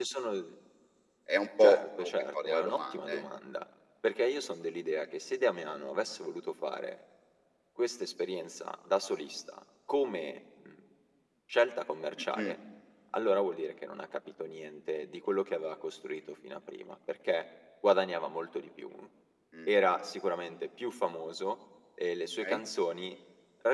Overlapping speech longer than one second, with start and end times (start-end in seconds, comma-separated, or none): 1.6-3.2